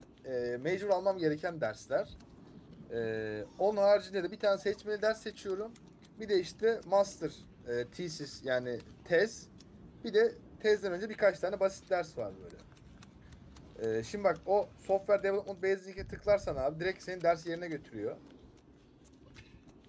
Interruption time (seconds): none

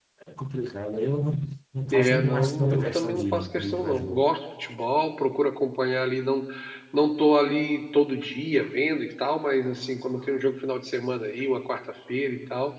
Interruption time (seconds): 1.9 s

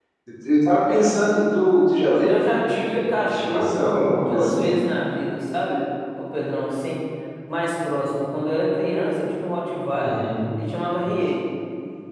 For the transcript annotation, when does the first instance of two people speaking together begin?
2.1 s

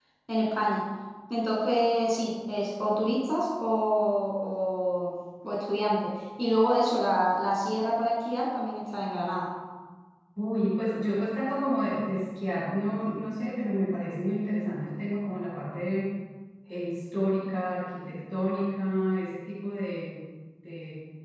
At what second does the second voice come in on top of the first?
none

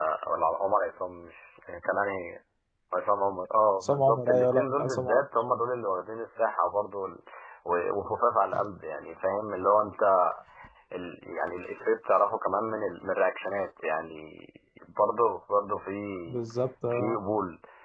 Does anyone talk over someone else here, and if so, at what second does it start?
3.8 s

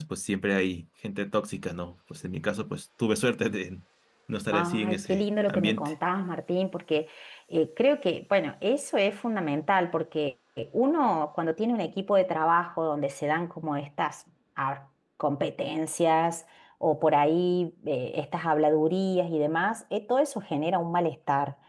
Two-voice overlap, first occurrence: 4.5 s

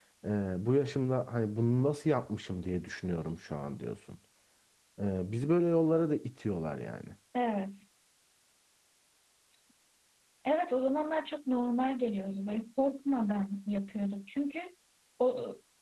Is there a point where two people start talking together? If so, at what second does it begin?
none

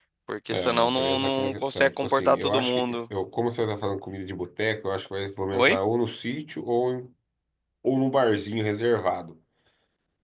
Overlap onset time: 0.5 s

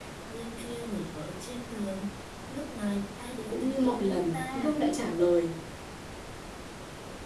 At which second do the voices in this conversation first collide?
3.5 s

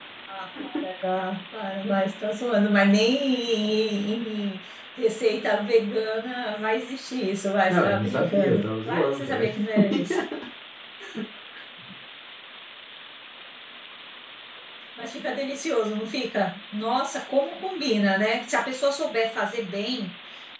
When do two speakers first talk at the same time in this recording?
7.7 s

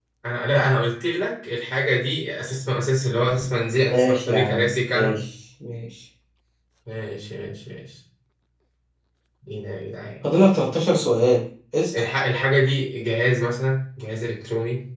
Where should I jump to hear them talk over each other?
3.9 s

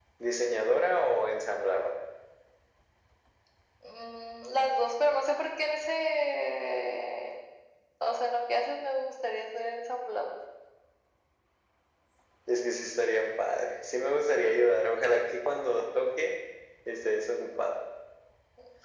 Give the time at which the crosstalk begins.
none

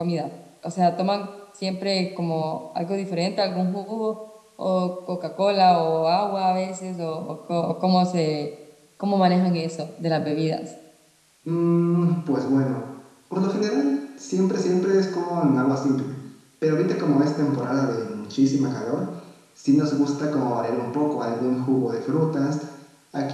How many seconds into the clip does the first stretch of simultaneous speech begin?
none

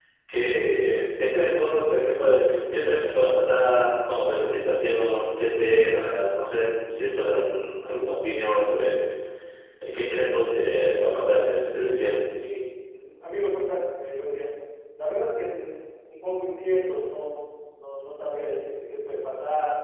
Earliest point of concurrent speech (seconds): none

